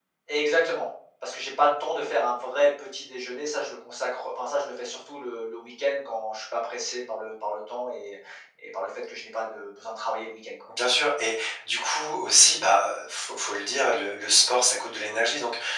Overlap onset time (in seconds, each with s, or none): none